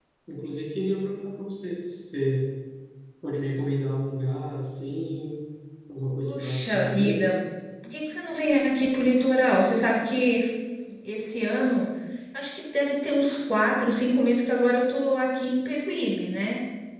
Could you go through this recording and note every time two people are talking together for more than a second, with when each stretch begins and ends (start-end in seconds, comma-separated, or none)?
6.1-7.3